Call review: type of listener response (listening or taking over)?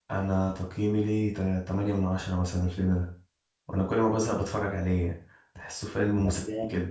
taking over